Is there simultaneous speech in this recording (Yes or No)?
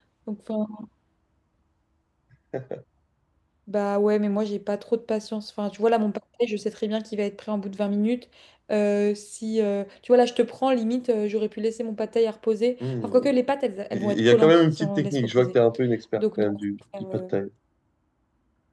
Yes